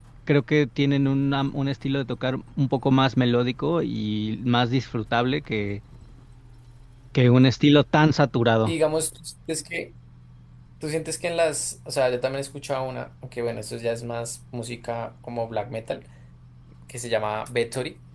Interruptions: none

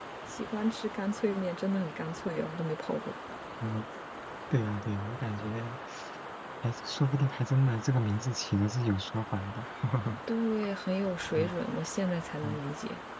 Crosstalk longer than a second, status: none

